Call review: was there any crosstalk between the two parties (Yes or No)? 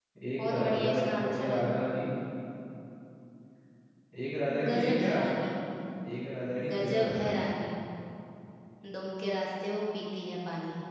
Yes